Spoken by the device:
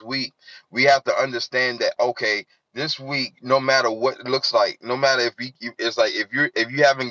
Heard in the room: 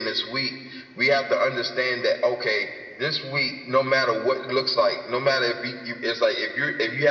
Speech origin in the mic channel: echo only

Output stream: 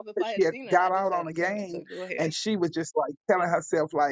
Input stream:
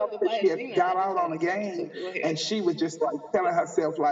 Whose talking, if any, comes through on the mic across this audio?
echo only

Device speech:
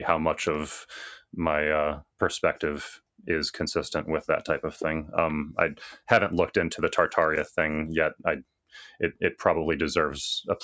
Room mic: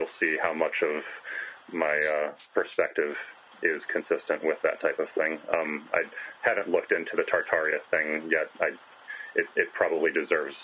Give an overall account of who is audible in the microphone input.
echo only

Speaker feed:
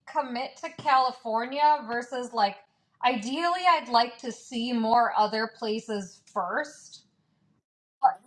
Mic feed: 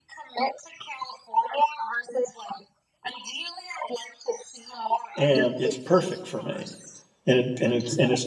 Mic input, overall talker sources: both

